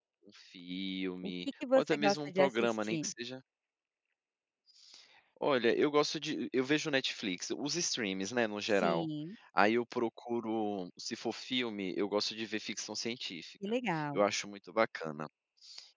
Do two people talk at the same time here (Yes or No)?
Yes